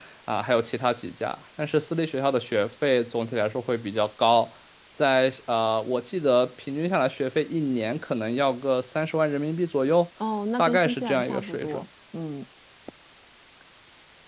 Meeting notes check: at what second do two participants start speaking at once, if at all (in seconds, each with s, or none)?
10.6 s